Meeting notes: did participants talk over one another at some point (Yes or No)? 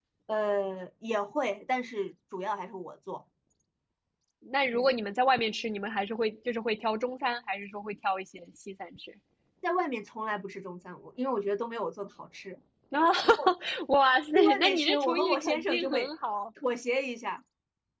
Yes